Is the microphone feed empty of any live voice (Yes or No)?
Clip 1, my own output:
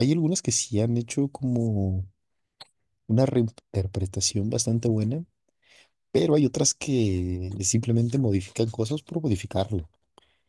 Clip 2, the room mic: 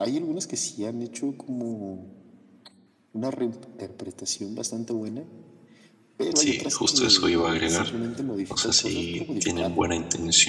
No